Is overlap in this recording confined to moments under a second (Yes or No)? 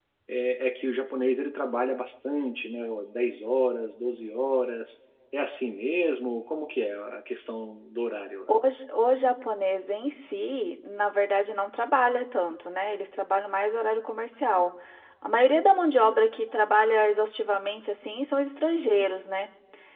Yes